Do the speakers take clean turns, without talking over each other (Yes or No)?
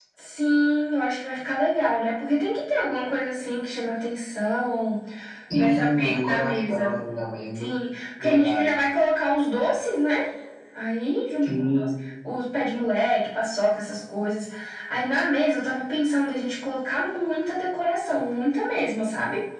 No